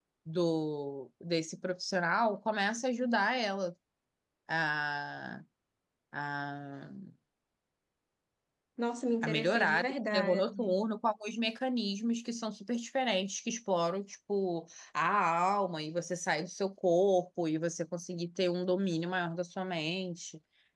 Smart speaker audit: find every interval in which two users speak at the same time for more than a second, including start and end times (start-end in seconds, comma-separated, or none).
9.2-10.7